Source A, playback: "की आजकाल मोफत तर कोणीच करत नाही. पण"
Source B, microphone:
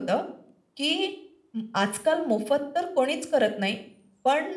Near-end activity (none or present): none